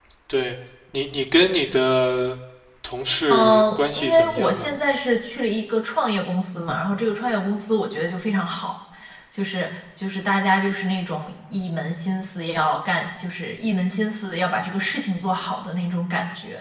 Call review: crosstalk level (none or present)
present